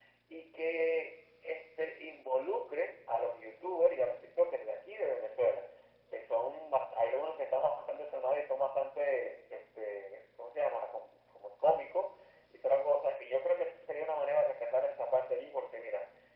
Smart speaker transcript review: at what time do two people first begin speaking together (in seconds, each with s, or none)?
none